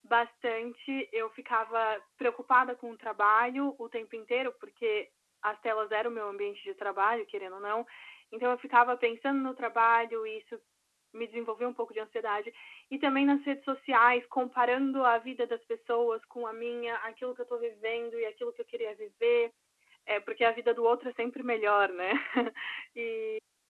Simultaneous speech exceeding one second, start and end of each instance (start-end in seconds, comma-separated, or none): none